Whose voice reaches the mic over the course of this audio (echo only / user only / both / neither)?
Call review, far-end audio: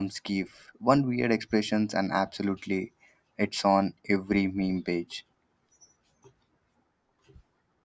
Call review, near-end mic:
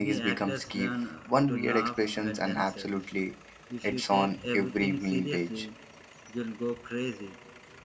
both